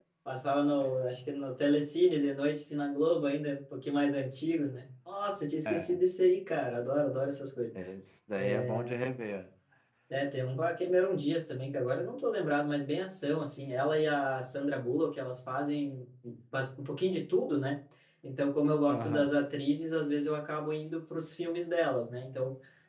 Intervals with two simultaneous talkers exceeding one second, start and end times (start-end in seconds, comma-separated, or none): none